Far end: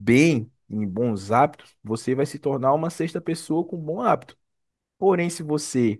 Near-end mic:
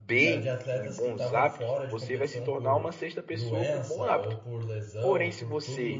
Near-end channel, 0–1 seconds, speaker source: both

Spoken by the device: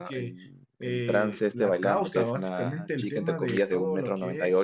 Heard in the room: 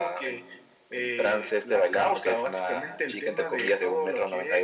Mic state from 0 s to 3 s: echo only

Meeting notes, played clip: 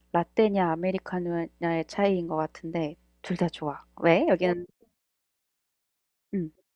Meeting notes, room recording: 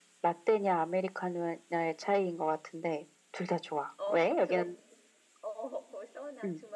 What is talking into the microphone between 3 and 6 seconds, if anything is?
both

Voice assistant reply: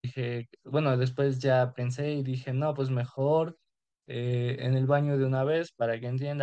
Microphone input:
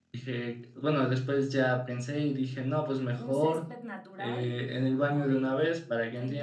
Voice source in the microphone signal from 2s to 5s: both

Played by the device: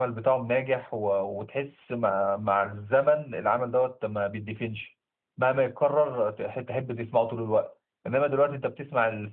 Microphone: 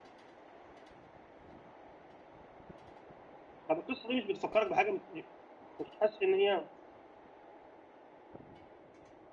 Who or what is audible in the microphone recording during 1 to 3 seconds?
neither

